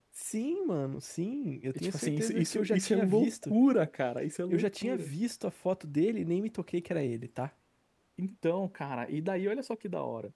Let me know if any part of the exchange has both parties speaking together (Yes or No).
Yes